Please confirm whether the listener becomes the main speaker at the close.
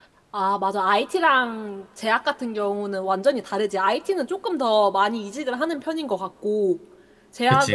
No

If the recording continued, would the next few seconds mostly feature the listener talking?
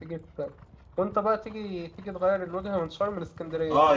Yes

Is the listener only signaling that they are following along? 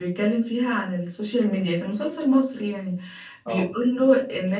Yes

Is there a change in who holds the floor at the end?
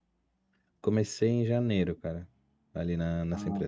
Yes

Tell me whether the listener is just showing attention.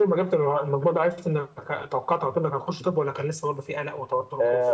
No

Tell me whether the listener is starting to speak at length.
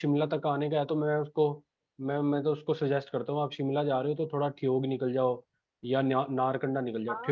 No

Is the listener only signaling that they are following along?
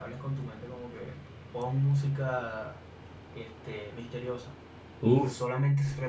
Yes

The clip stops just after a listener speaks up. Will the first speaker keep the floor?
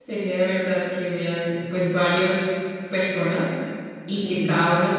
Yes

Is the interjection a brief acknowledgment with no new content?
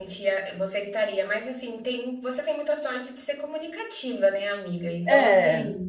Yes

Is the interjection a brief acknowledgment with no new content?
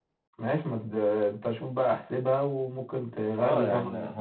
No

